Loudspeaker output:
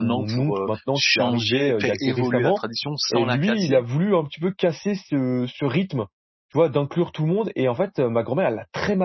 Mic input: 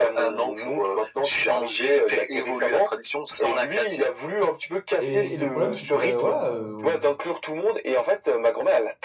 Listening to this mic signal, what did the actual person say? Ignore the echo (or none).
et et le problème, c'est que, bah, voilà, heu,